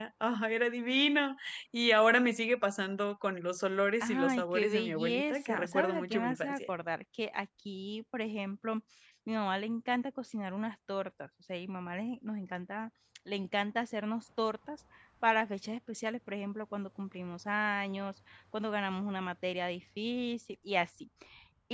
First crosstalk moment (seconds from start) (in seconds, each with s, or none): 4.0 s